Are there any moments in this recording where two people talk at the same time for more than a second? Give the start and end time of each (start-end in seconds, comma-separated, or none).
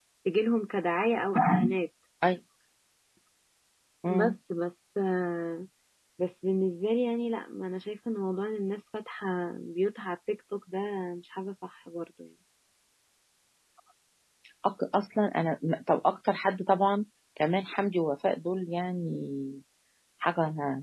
none